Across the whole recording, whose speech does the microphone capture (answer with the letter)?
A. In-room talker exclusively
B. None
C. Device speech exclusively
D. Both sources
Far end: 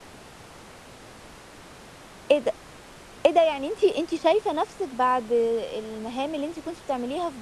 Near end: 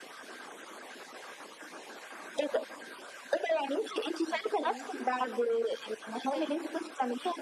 D